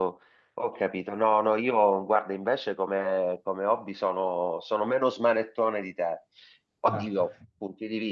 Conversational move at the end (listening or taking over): listening